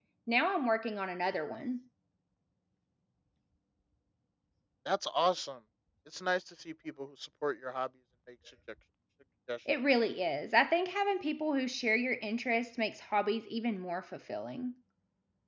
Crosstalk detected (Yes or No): No